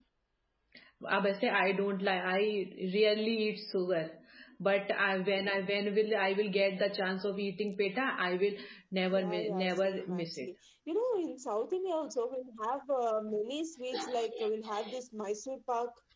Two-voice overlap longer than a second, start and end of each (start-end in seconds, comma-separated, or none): 9.1-10.5